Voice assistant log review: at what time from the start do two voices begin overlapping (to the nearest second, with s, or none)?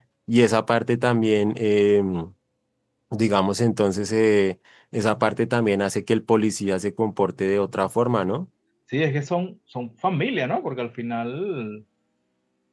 none